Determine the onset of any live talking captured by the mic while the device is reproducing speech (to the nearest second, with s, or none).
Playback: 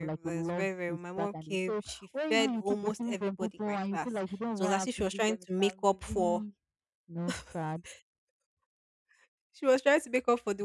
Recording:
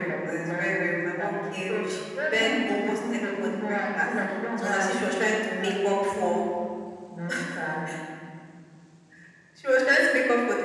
none